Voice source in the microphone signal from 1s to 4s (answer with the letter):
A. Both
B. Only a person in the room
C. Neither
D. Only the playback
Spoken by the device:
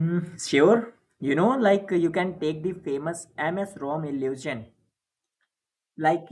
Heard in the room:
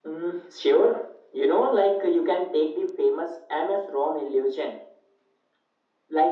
D